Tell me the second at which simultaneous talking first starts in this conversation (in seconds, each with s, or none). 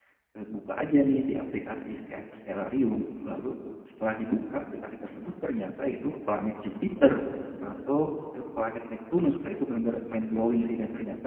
none